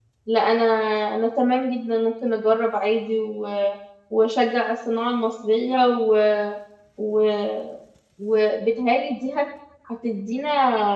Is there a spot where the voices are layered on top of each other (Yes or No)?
No